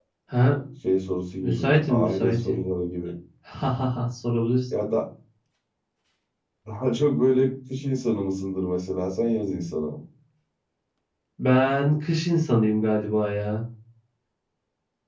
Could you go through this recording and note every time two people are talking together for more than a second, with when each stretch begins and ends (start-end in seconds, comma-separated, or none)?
1.4-2.6